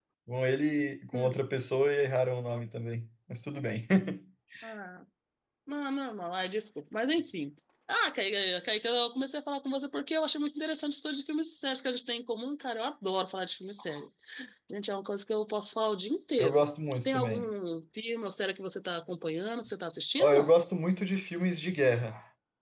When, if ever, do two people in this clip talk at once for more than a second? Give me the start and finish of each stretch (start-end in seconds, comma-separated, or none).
none